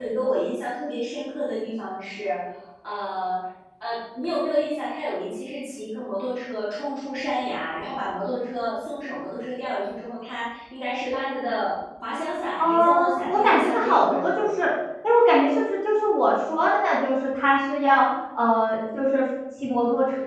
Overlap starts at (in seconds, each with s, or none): 12.6 s